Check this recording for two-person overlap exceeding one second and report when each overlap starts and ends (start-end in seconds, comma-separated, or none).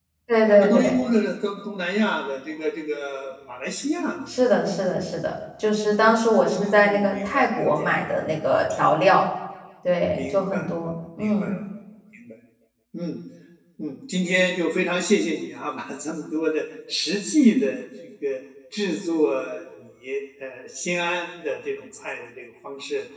6.5-8.0